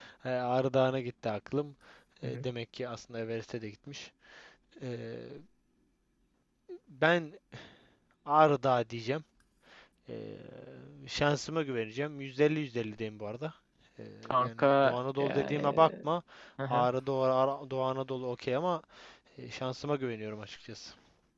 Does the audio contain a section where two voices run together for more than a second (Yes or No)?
Yes